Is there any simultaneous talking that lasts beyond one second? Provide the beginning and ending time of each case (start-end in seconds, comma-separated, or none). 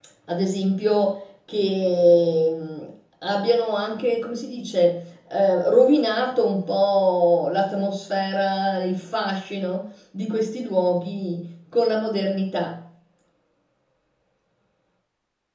none